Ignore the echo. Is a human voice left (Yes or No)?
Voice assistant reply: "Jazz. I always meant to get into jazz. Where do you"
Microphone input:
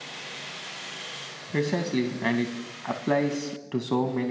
Yes